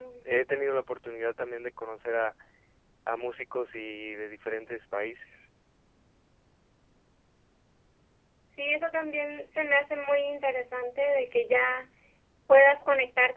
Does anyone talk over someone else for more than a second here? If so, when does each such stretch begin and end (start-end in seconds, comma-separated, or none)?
none